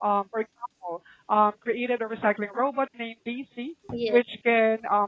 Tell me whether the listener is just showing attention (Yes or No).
Yes